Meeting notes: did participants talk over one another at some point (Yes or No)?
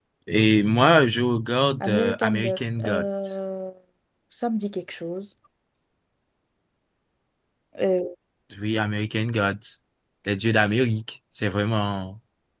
Yes